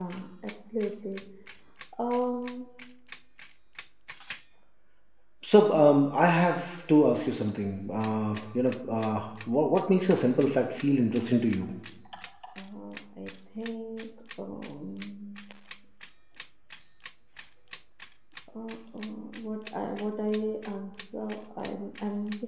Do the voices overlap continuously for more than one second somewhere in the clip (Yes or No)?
No